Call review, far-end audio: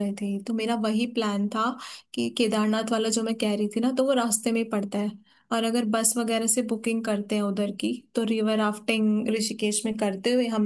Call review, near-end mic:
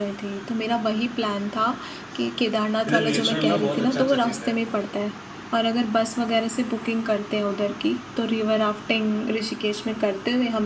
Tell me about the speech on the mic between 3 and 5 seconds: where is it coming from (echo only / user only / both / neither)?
both